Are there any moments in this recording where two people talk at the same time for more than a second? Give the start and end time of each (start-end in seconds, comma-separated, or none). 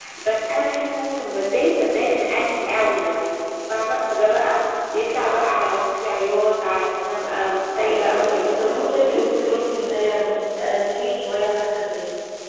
7.8-9.3